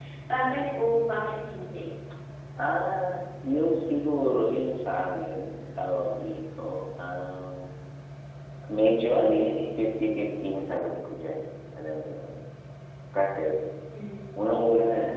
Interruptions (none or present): none